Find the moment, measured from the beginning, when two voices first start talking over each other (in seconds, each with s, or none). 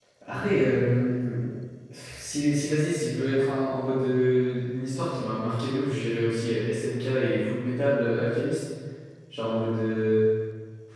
none